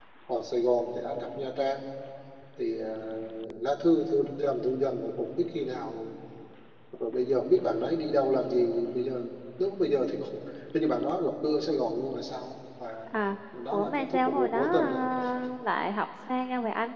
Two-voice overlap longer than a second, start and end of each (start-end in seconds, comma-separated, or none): 13.7-15.0